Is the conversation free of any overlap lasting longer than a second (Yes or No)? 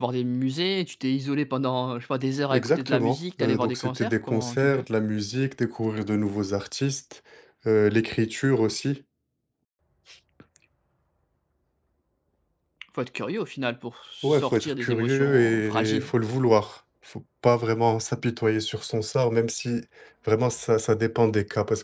No